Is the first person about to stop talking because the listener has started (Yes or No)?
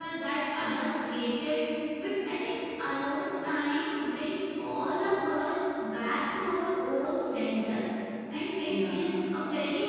No